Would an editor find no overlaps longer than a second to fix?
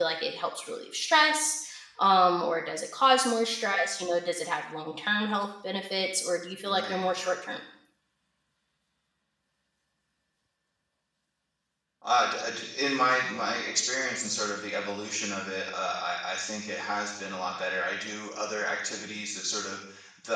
Yes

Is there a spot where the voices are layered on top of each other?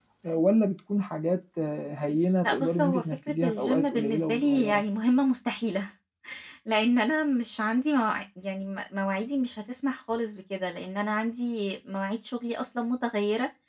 Yes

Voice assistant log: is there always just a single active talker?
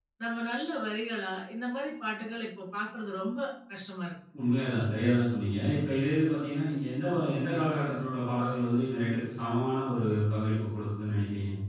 Yes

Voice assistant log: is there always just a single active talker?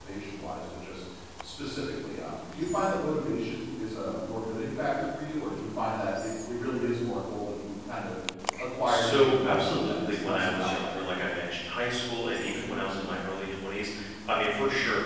No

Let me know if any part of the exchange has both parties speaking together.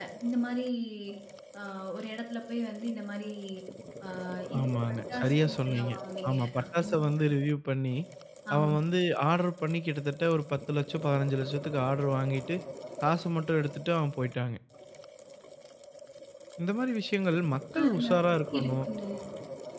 Yes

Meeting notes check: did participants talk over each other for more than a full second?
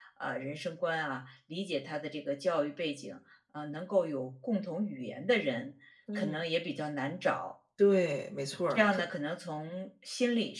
No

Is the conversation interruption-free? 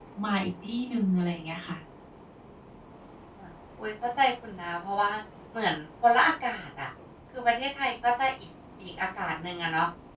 Yes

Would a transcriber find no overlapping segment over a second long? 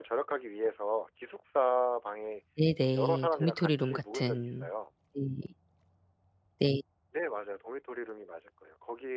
No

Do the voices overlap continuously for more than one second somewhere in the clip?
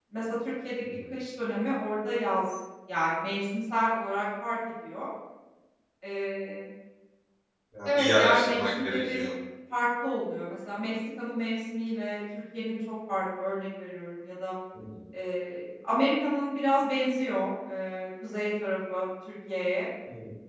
Yes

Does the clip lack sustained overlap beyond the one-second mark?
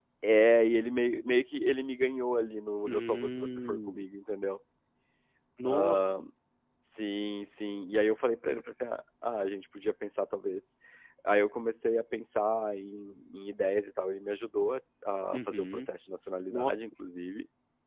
No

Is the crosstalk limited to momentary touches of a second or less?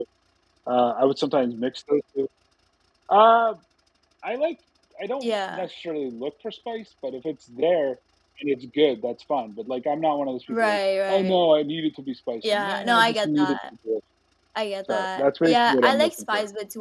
No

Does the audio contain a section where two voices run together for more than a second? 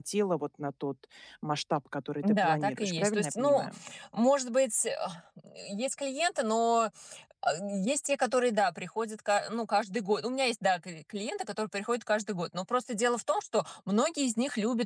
Yes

